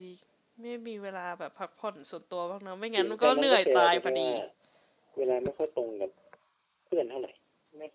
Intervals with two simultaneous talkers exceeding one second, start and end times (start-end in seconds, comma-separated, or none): 3.0-4.3